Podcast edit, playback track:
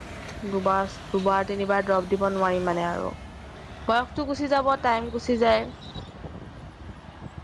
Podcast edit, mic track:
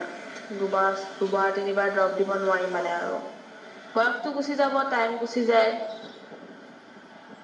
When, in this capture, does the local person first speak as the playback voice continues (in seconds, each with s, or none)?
none